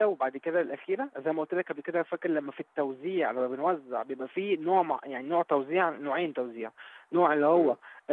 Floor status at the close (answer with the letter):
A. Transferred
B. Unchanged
B